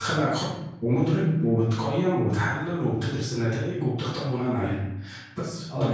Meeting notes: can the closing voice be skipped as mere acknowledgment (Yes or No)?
No